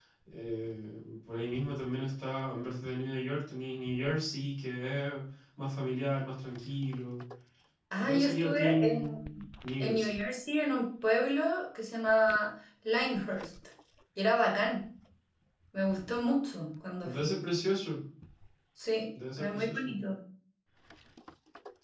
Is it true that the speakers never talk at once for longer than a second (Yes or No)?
No